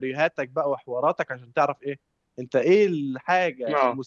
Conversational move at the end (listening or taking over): listening